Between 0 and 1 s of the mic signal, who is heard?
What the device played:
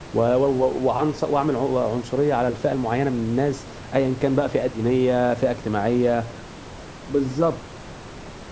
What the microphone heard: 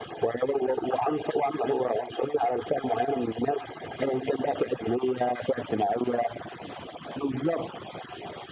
echo only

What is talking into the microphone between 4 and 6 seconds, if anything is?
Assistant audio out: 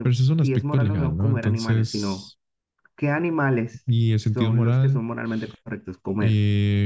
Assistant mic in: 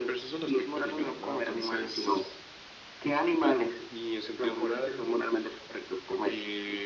echo only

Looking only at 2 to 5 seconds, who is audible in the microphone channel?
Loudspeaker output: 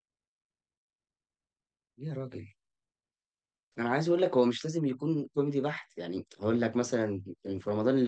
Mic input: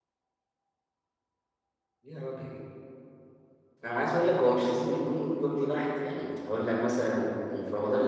echo only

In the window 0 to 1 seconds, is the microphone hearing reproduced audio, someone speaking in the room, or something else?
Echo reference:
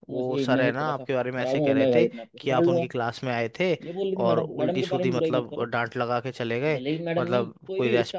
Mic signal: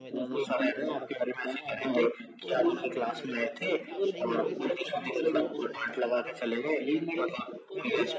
both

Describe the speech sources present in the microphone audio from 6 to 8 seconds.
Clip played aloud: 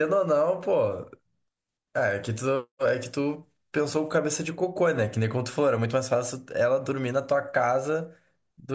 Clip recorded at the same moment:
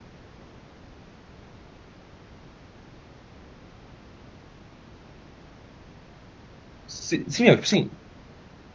user only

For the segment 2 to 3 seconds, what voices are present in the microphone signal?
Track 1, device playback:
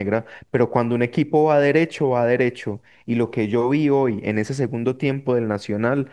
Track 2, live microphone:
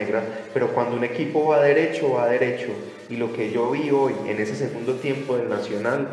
echo only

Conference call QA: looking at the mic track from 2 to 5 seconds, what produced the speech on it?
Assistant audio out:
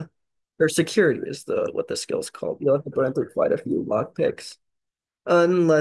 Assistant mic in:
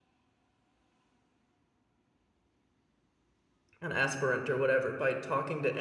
user only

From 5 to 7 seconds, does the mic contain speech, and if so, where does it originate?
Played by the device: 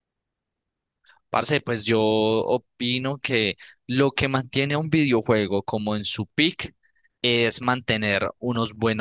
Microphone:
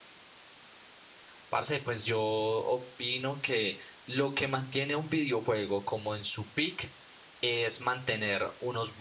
echo only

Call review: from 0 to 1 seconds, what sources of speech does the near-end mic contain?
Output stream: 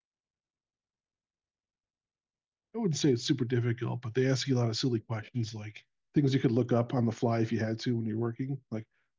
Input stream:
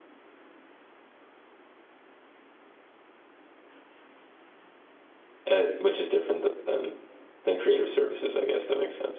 neither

